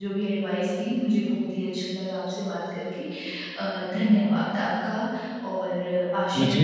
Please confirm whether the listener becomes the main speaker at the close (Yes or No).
Yes